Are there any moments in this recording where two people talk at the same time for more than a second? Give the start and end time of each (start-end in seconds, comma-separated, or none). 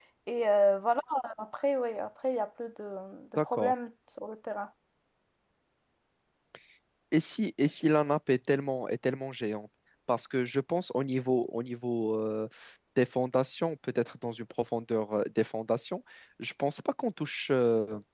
none